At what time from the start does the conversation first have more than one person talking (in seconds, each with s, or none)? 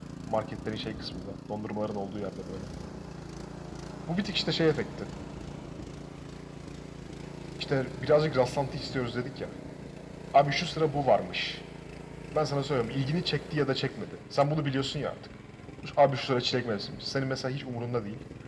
none